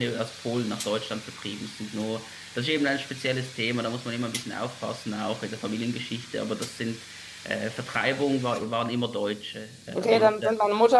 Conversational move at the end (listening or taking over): taking over